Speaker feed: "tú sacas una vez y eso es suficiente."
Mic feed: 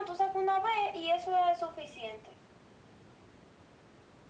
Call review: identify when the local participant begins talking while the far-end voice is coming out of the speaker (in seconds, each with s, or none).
none